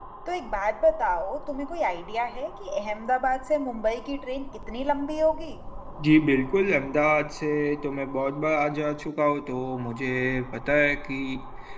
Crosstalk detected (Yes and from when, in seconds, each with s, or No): No